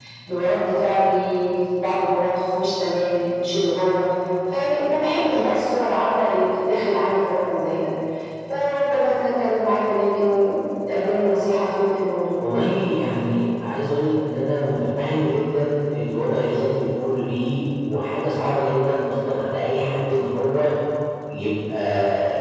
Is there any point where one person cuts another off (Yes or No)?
No